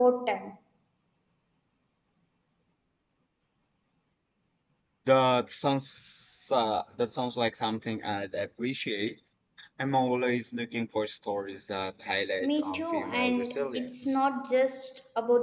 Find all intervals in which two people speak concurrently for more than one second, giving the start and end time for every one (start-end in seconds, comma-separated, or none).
12.4-14.2